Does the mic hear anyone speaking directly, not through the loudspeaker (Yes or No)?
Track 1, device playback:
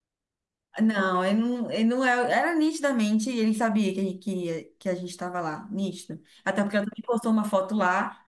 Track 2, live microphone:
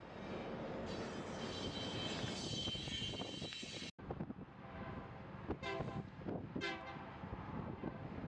No